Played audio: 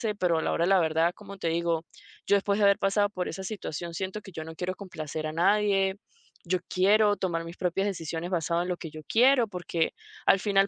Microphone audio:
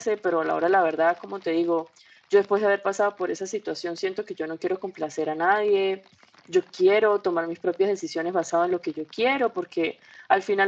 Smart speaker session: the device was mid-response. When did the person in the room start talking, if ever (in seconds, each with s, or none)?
none